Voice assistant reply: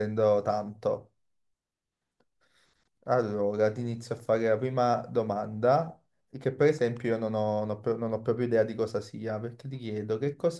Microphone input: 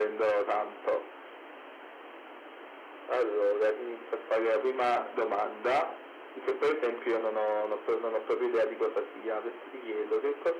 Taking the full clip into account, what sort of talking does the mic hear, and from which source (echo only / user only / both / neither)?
echo only